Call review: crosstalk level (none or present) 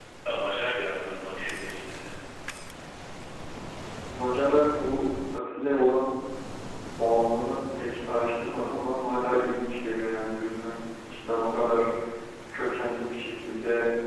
none